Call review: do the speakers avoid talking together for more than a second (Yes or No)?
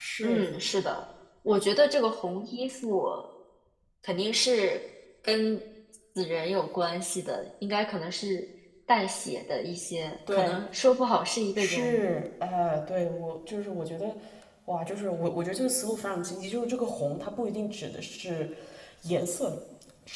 Yes